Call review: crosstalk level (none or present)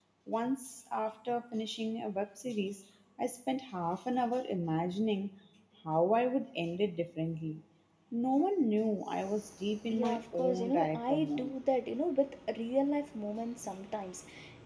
present